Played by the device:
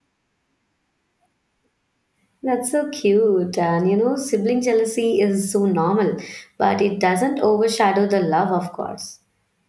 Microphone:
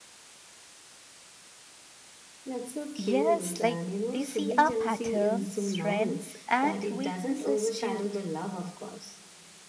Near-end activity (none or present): present